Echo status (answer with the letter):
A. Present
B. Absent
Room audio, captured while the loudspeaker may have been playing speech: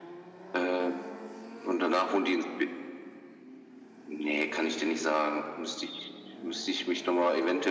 A